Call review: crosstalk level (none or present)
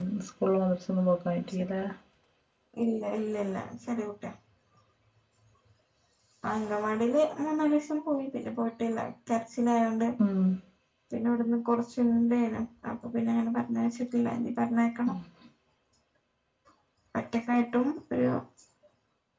none